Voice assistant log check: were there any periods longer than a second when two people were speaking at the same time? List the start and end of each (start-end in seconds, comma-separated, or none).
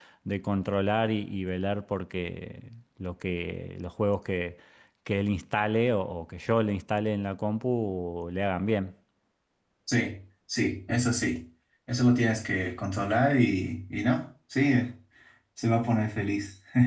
none